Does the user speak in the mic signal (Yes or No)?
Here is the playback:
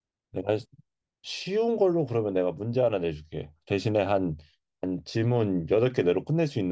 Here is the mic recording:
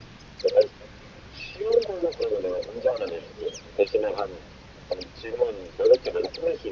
No